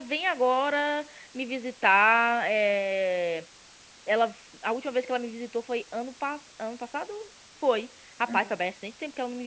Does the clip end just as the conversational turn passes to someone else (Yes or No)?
No